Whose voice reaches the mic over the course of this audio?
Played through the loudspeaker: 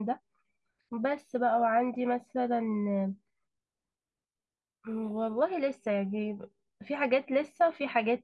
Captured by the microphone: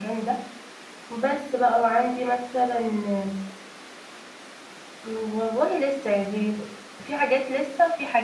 echo only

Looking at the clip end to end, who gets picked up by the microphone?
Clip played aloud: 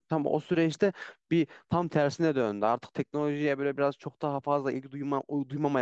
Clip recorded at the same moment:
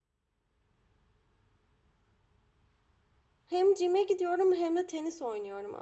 user only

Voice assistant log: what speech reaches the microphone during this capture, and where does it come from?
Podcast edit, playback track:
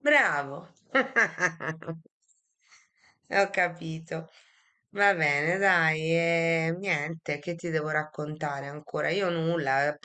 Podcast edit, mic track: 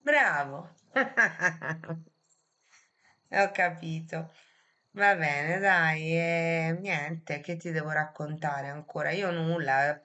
echo only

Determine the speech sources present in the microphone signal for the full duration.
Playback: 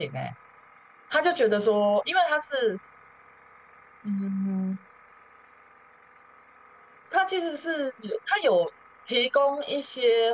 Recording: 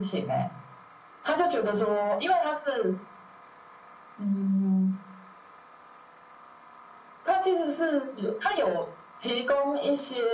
echo only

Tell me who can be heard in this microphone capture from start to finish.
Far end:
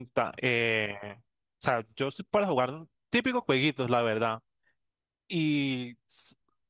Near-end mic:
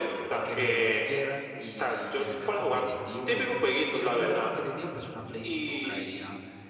both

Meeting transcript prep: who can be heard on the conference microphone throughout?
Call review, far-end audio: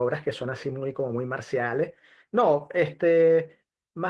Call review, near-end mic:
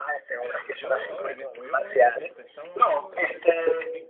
both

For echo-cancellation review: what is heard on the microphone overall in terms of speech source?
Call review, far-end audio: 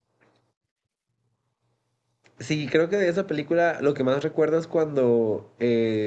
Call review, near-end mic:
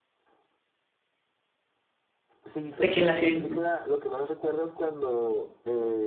both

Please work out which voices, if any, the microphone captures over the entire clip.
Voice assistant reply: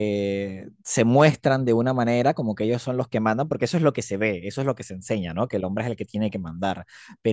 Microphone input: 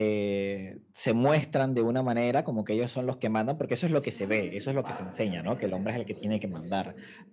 both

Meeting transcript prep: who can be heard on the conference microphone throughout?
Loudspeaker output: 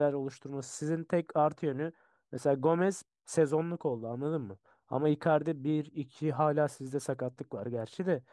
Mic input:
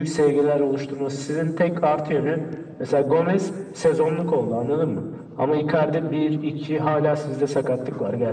echo only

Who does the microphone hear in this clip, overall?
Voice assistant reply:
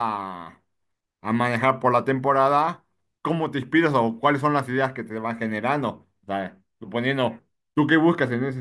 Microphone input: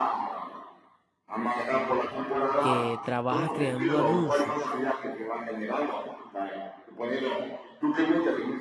both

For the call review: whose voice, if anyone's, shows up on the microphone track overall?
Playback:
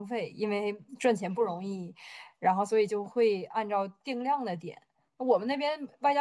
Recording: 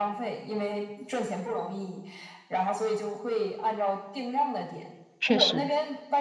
both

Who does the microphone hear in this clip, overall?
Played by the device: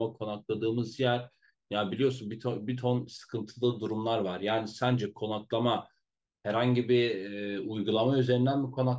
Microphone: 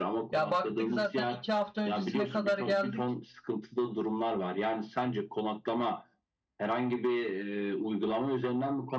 both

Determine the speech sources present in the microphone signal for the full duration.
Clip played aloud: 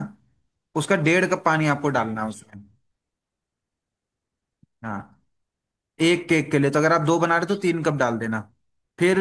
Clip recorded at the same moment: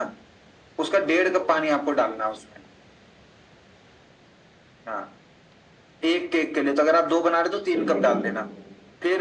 both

